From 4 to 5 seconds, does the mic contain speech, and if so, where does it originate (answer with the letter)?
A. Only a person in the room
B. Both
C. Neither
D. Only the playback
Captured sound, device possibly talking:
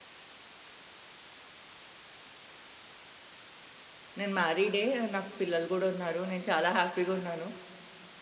A